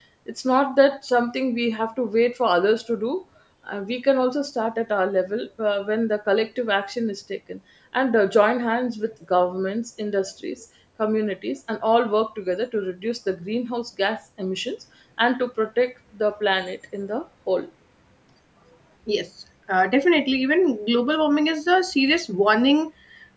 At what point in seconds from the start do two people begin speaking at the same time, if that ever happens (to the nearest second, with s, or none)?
none